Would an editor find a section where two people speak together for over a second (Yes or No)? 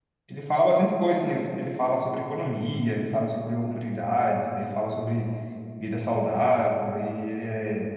No